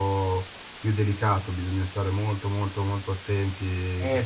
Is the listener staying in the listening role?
No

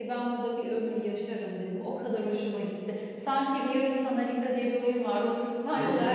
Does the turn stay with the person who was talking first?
Yes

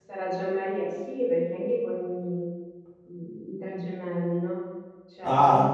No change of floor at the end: Yes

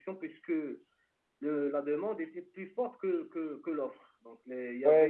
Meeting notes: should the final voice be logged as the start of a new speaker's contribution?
Yes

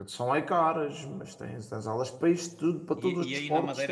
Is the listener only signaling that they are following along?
No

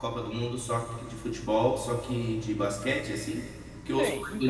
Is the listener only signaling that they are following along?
Yes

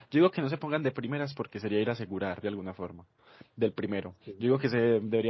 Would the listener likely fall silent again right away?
Yes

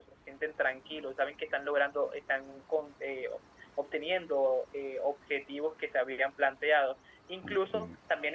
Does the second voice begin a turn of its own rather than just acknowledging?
No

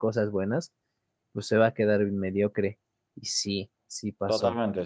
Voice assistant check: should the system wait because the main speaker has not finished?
No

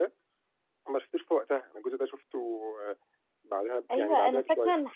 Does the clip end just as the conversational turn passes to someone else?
Yes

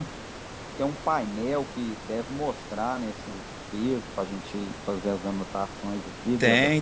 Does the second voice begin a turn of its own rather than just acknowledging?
Yes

